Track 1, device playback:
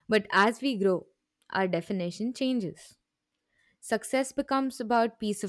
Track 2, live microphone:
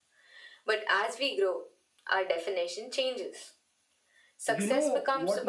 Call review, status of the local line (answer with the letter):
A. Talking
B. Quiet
A